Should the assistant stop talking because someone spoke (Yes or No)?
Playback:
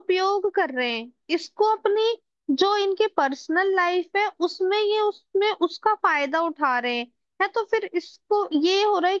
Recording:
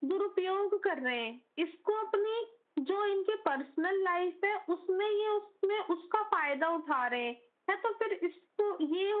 No